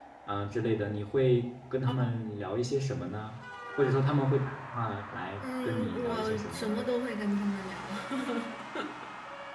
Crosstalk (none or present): present